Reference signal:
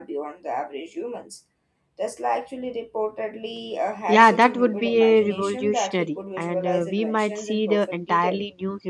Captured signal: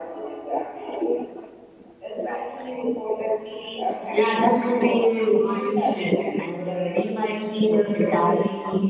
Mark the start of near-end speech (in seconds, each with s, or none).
none